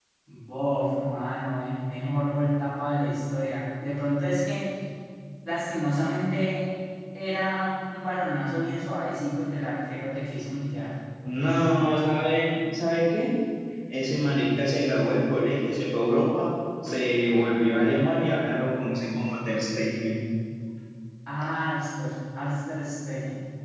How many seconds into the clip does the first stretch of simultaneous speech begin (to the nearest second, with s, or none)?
none